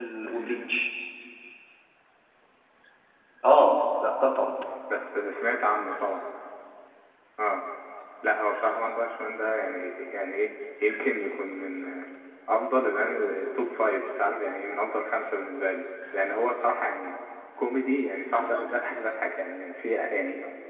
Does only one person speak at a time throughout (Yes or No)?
Yes